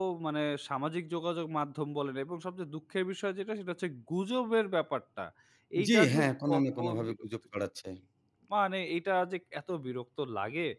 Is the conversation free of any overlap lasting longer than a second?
No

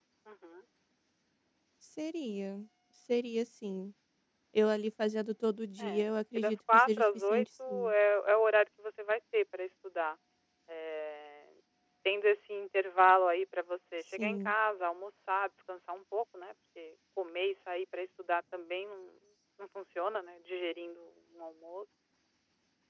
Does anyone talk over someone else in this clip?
Yes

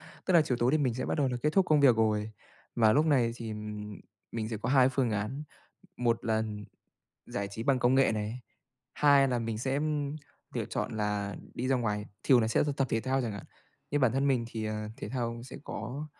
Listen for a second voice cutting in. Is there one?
No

